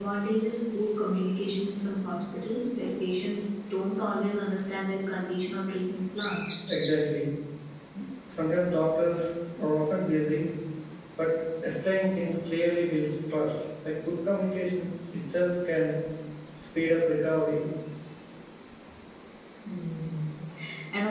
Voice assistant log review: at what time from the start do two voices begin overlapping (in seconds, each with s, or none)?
none